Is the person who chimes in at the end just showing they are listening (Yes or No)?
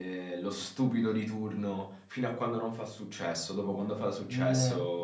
No